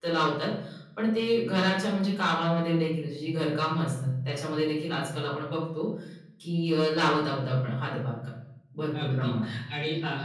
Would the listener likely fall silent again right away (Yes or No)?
No